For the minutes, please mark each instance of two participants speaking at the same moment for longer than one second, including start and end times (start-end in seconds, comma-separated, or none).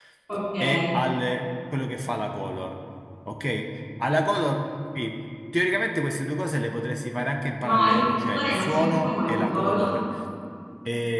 7.6-9.9